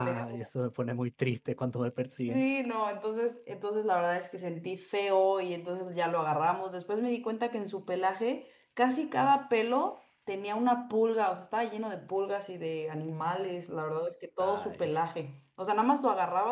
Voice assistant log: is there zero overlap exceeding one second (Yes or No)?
Yes